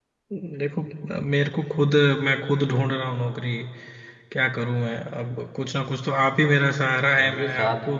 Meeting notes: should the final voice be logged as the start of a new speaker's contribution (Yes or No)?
No